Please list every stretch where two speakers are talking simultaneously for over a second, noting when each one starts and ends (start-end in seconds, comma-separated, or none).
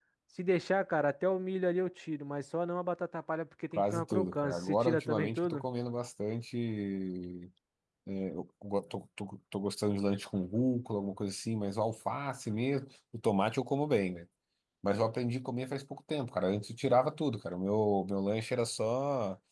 3.8-5.6